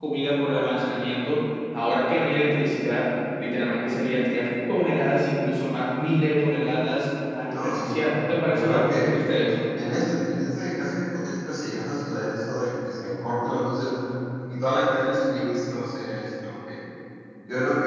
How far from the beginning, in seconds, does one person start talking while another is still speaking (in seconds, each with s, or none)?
7.5 s